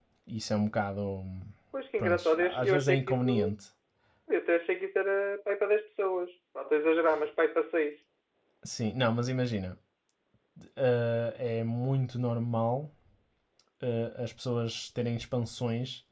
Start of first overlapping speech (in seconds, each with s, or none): 2.0 s